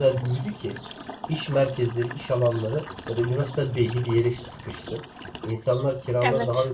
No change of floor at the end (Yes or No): Yes